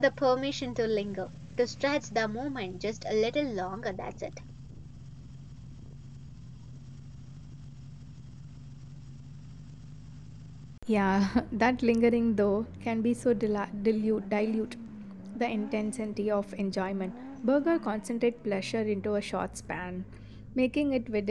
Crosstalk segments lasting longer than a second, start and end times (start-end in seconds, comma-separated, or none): none